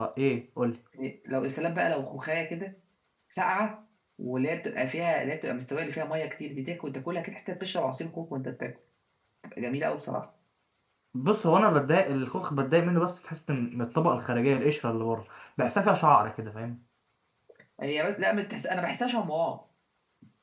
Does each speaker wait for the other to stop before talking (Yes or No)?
Yes